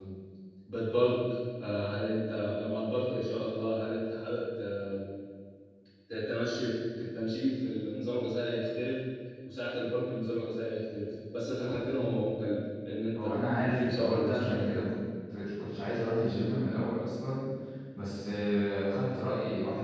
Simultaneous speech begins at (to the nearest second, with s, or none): 13 s